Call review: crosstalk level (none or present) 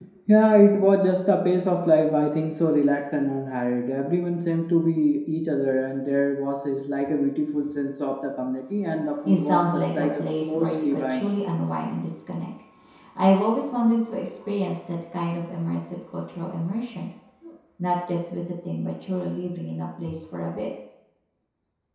present